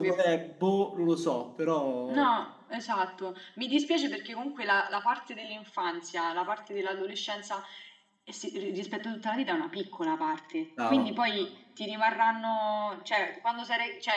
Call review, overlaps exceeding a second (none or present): none